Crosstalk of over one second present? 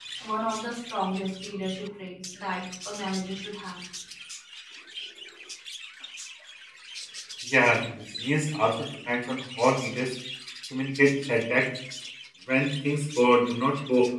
No

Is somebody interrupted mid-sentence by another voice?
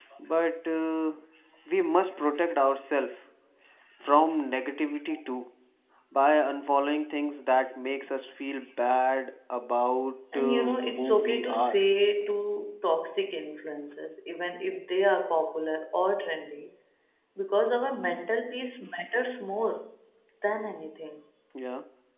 Yes, from 10.3 s

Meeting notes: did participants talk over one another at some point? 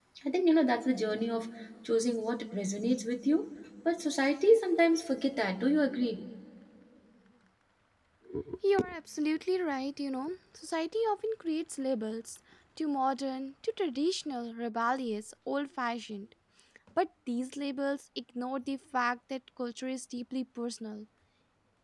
No

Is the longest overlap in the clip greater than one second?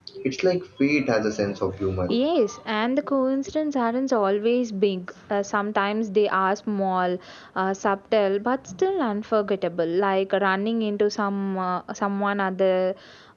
No

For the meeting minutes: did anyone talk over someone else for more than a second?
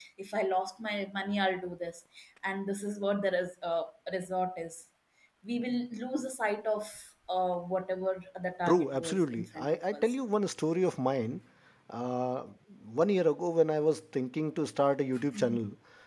Yes, from 8.7 s

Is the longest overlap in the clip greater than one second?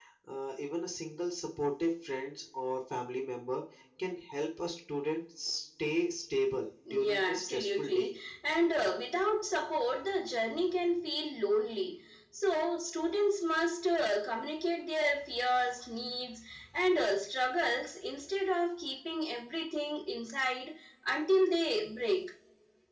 Yes, from 6.8 s

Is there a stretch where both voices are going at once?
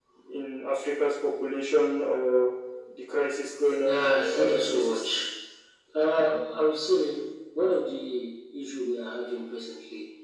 Yes, from 3.8 s

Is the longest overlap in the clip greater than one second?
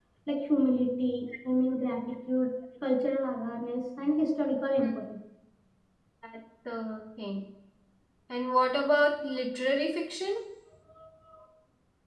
No

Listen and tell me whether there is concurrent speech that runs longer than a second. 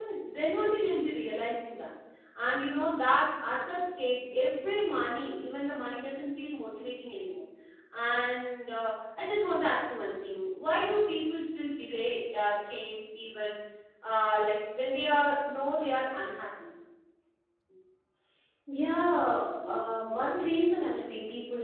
No

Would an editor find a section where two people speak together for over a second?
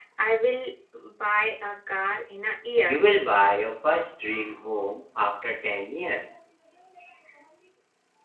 No

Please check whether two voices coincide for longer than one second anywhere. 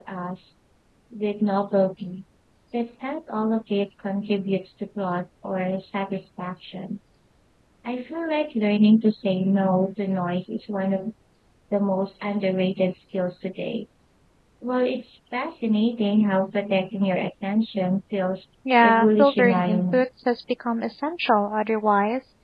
Yes, from 18.6 s

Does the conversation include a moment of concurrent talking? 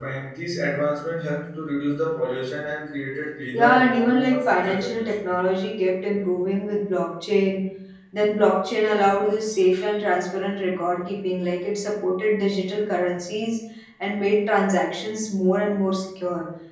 Yes, from 3.5 s

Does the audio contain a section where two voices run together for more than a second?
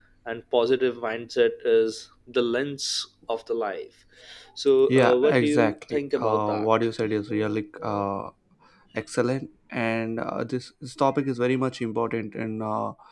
Yes, from 4.9 s

